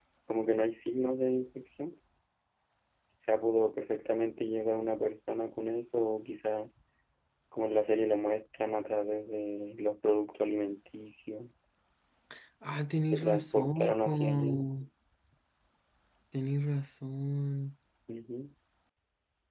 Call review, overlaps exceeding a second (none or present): present